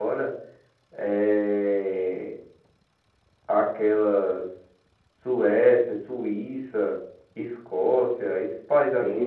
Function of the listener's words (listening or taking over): taking over